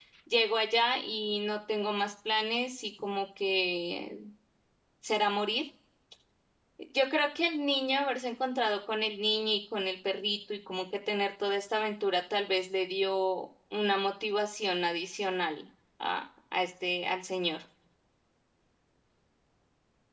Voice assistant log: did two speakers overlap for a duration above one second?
No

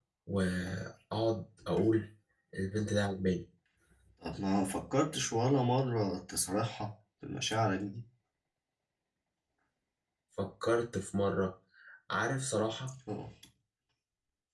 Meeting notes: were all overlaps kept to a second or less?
Yes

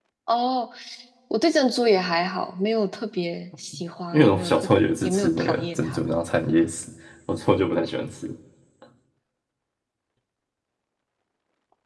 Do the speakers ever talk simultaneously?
Yes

